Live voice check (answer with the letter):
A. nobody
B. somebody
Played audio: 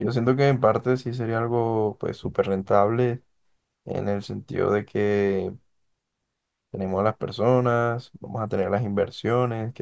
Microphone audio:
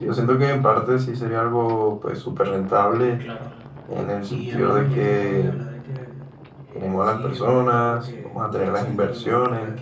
B